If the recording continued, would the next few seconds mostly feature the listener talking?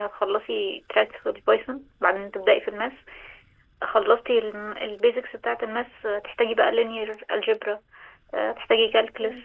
No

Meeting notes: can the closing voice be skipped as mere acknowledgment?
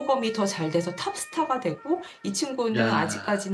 Yes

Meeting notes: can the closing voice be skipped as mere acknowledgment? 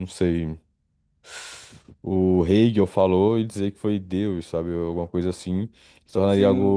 No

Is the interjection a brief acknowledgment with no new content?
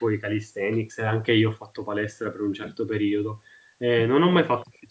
Yes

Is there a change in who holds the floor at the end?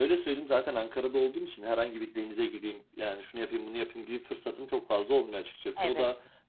No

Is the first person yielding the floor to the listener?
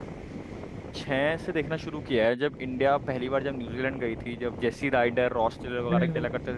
Yes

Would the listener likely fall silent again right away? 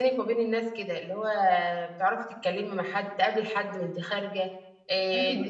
Yes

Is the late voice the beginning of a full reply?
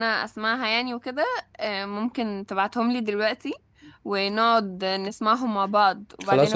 Yes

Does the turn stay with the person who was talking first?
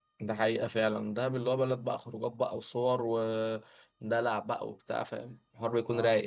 No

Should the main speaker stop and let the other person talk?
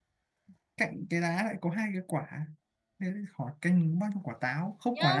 Yes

